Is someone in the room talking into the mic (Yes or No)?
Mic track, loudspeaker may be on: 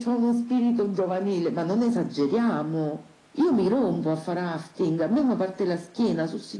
No